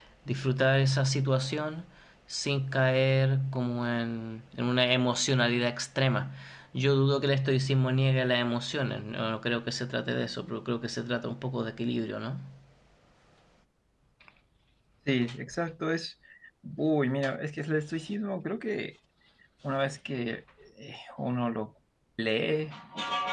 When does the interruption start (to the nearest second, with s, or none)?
none